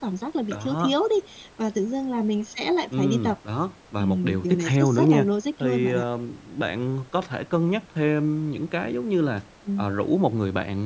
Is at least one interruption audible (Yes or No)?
Yes